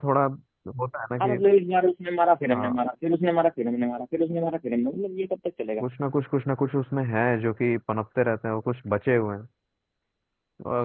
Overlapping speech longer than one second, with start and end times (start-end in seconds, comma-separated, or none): none